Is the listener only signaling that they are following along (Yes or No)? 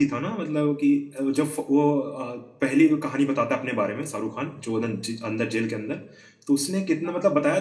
Yes